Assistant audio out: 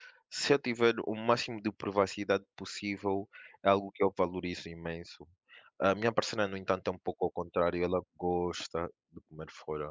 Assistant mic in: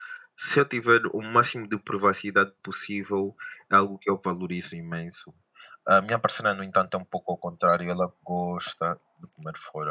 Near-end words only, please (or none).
none